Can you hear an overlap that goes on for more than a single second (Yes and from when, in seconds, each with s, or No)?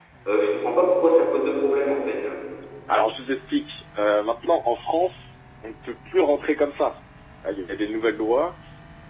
No